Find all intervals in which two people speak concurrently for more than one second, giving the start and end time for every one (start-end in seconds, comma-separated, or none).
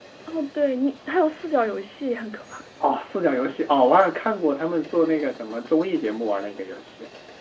none